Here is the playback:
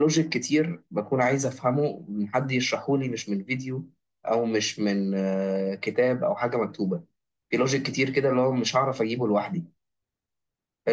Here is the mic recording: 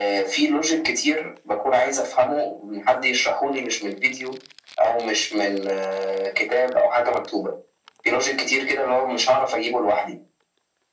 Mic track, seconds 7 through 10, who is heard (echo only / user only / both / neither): echo only